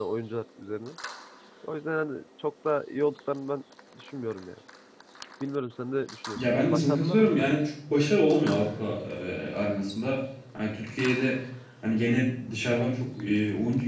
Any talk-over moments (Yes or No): Yes